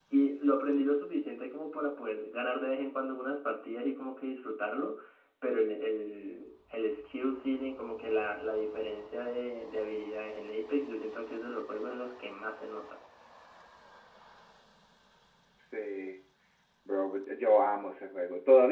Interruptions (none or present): none